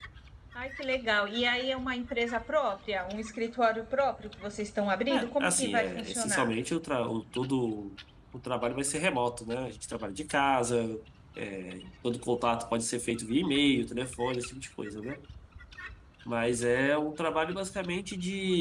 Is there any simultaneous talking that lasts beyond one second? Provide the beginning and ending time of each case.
5.1-6.5

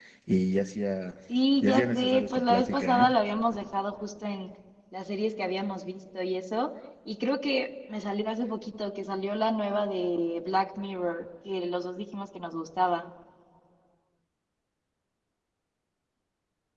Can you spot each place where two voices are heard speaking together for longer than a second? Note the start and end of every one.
1.6-3.1

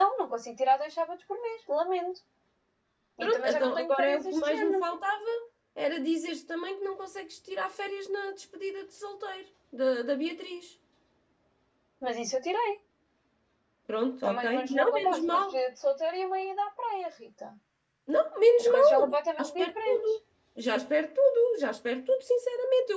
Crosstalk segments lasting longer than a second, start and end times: 3.2-4.8, 14.2-15.5, 18.6-20.1

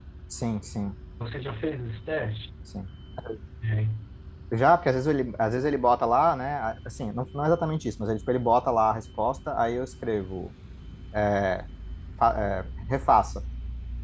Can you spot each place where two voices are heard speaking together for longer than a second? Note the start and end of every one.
none

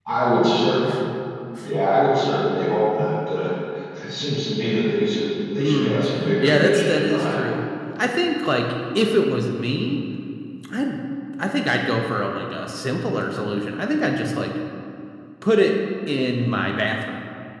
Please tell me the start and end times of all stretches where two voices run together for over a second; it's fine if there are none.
5.6-7.4

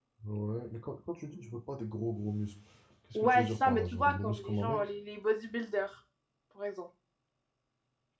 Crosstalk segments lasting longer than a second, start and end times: 3.1-4.9

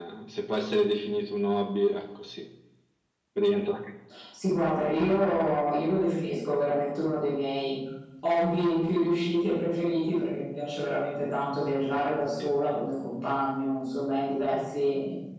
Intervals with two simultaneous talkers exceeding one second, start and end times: none

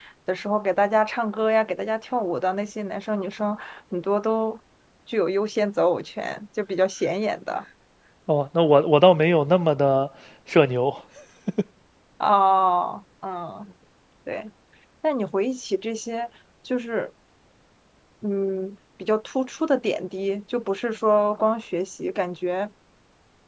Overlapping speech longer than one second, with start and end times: none

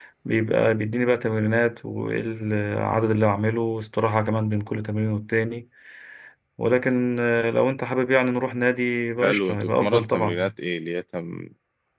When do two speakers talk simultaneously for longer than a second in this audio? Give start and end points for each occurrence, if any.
9.2-10.5

